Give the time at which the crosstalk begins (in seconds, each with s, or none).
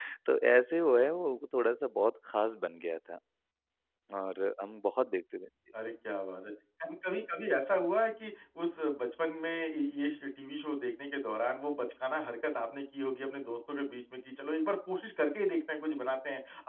none